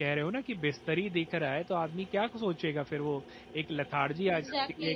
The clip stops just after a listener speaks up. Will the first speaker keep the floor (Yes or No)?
No